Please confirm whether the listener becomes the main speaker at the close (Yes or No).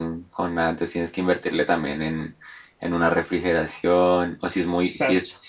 No